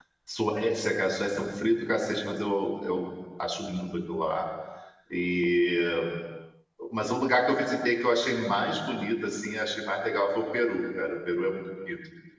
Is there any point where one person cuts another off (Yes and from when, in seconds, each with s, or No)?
No